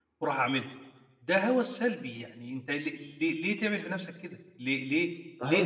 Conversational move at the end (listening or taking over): taking over